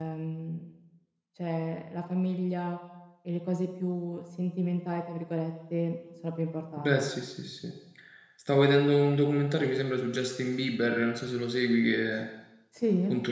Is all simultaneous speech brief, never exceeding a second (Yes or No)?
Yes